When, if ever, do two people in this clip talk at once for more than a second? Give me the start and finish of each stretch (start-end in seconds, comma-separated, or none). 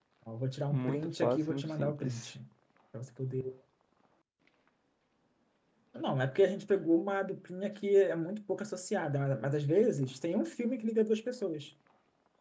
0.7-2.3